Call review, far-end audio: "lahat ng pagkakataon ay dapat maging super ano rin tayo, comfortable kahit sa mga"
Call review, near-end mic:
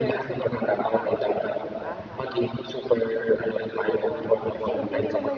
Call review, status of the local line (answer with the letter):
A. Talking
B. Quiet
A